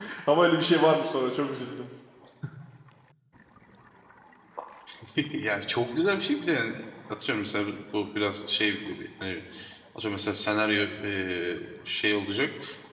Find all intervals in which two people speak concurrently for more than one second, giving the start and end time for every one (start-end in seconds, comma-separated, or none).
none